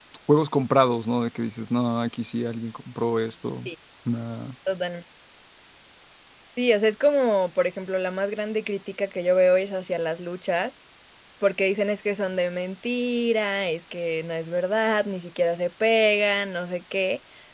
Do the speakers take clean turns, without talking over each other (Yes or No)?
Yes